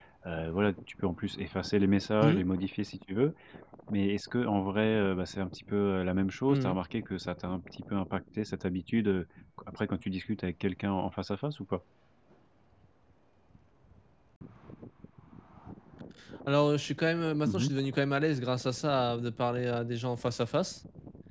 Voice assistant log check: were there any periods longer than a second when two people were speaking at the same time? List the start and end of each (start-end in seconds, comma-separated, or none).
none